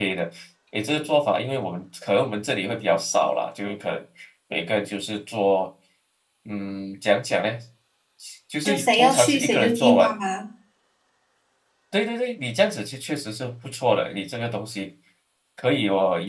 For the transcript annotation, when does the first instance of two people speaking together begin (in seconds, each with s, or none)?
8.6 s